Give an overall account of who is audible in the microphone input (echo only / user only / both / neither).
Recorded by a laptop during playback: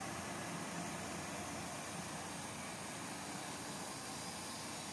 neither